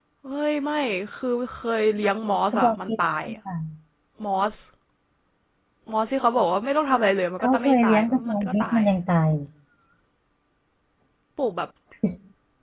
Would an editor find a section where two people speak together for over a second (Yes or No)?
Yes